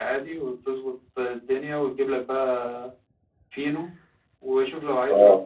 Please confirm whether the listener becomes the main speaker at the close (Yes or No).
No